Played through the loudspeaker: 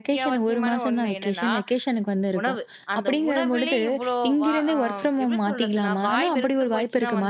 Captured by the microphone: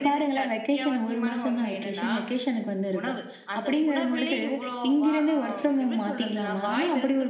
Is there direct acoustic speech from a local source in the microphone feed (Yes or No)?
No